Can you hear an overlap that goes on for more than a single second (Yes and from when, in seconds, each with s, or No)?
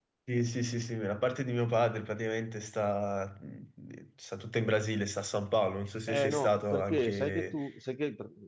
Yes, from 6.1 s